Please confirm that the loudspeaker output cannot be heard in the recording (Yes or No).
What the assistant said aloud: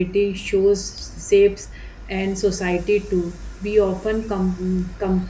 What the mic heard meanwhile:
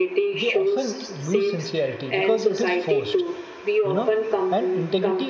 No